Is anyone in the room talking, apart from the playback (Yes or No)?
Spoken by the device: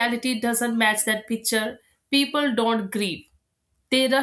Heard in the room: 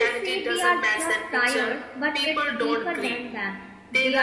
Yes